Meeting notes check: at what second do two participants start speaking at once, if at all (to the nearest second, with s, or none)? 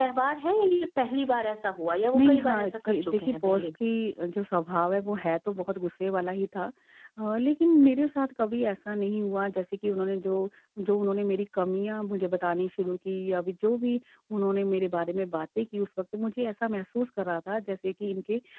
2 s